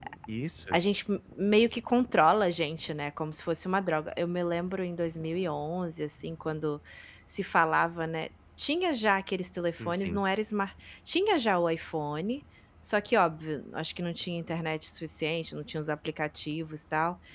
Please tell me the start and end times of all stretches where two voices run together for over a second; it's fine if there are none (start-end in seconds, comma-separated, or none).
none